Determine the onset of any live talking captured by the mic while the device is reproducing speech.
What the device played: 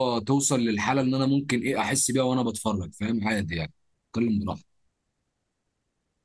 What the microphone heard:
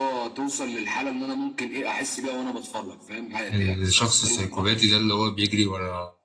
4 s

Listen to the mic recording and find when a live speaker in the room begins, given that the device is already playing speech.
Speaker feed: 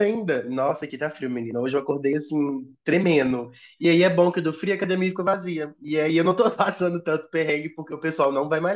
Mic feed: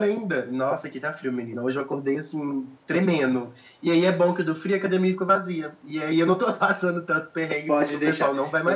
8 s

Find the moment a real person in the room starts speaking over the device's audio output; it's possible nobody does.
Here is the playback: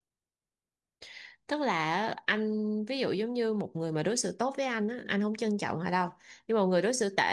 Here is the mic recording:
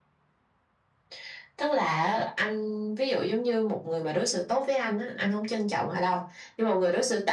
none

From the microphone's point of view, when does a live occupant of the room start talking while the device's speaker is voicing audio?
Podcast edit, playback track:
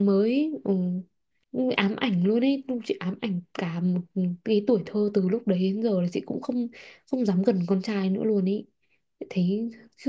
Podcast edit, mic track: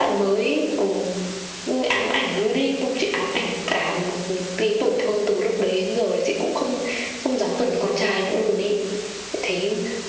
none

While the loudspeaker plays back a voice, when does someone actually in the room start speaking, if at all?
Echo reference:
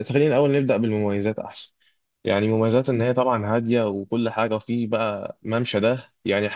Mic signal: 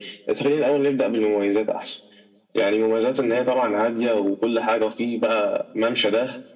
none

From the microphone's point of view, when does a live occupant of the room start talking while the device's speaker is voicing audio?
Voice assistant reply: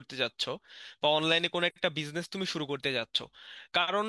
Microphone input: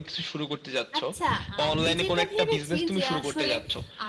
1 s

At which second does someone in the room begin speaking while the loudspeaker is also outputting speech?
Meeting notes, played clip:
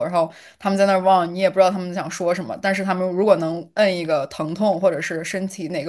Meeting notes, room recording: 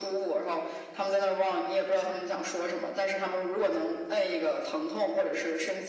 none

